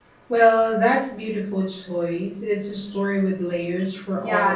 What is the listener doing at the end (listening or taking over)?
taking over